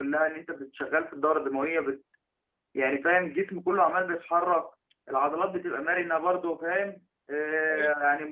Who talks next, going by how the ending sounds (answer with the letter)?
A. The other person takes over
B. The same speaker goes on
B